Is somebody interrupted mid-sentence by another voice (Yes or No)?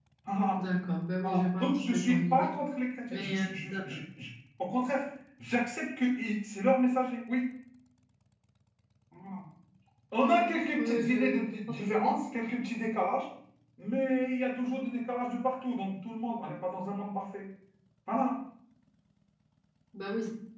Yes